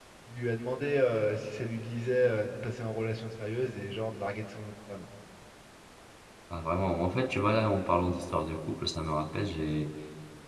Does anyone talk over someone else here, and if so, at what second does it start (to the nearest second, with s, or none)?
none